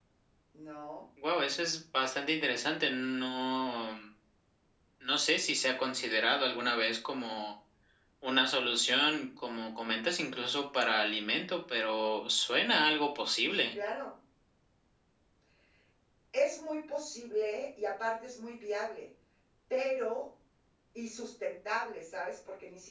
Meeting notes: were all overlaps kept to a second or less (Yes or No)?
Yes